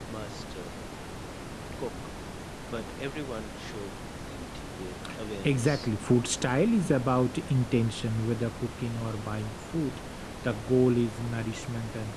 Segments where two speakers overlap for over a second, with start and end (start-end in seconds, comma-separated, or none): none